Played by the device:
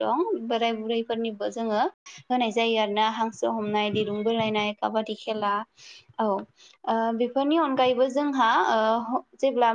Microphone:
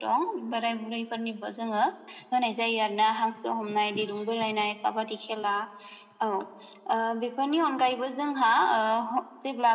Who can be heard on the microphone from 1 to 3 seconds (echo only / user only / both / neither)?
echo only